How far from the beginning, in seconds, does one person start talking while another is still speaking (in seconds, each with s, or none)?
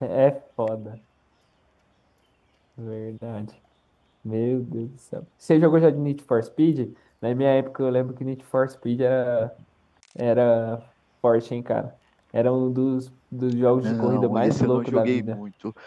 13.7 s